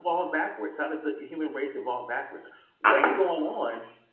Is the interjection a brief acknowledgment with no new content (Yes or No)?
Yes